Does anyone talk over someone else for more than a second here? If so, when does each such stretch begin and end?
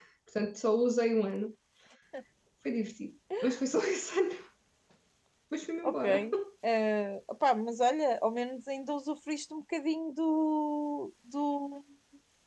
none

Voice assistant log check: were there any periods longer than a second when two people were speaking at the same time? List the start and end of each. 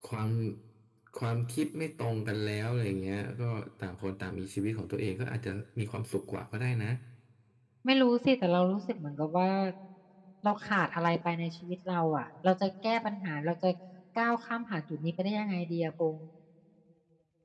none

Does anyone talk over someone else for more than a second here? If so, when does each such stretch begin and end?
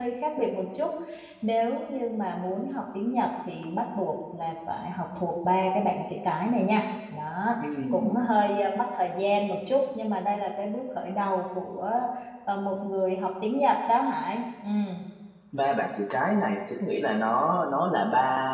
none

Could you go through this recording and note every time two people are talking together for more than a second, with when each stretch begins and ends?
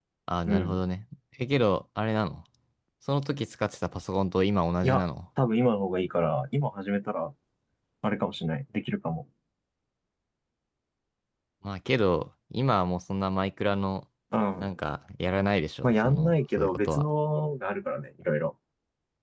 15.8-17.0

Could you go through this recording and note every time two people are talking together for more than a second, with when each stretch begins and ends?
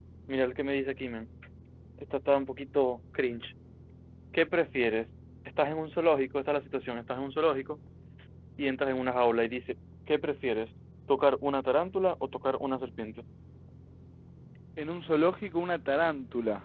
none

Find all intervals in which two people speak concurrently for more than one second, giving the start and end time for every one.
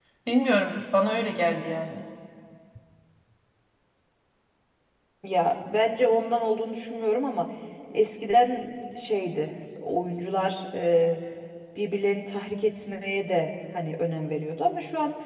none

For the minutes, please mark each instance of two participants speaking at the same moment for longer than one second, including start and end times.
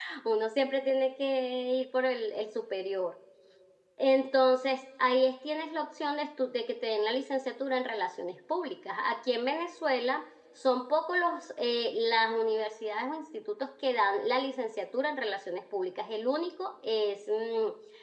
none

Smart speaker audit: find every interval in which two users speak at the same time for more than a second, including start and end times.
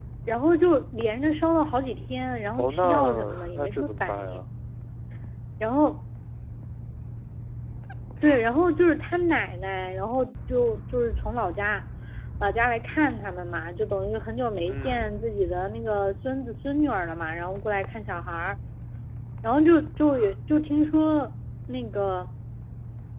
2.6-4.4

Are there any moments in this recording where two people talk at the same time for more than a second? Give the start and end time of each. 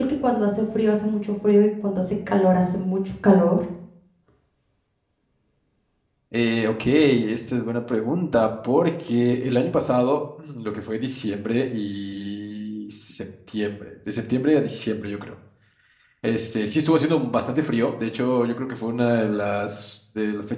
none

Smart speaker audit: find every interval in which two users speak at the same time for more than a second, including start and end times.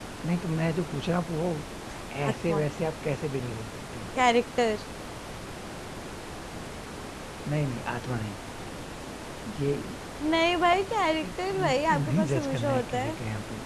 11.2-13.2

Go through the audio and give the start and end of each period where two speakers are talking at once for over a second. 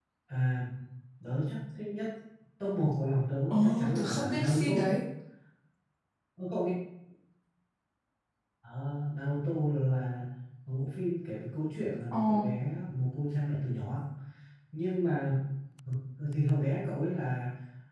3.5-4.7

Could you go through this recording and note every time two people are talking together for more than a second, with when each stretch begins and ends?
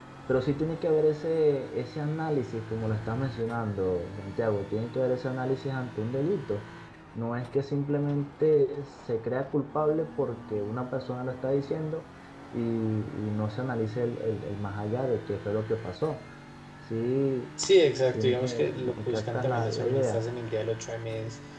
18.1-20.2

